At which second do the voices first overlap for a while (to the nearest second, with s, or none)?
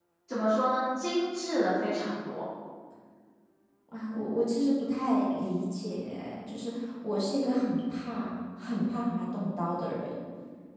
none